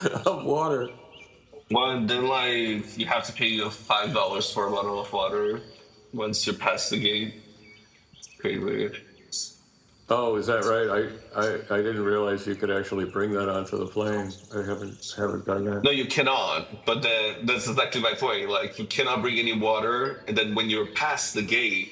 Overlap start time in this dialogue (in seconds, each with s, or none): none